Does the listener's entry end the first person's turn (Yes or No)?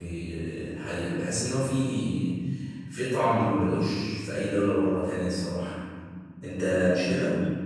Yes